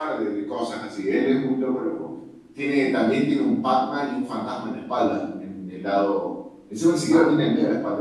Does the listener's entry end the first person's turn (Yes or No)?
No